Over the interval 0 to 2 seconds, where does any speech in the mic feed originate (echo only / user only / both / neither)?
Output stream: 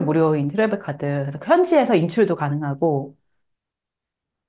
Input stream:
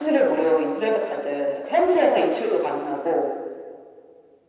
echo only